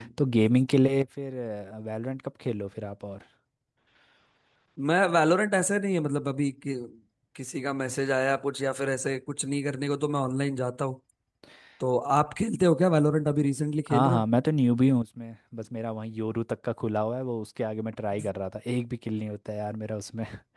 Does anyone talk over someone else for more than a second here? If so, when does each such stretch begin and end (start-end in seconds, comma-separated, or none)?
none